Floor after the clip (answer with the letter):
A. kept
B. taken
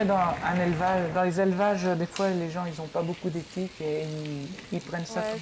B